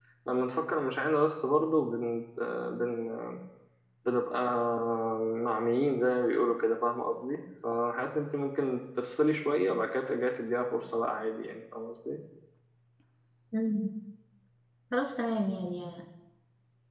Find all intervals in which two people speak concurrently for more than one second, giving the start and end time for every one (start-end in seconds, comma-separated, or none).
none